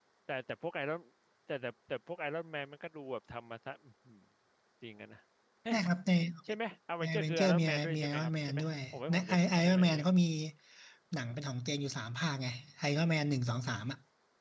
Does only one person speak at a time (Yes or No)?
No